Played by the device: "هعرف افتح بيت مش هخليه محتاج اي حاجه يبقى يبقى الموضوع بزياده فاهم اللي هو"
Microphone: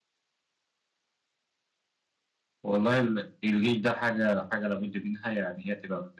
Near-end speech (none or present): present